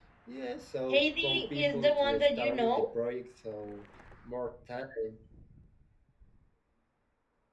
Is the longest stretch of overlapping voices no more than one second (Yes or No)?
No